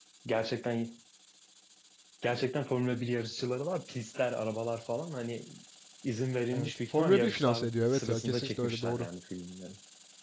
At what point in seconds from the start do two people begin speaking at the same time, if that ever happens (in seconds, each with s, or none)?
6.5 s